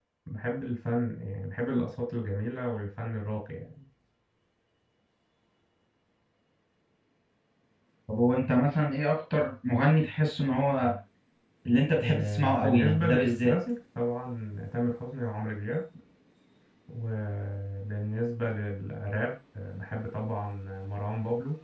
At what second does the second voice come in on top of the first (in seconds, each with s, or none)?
12.0 s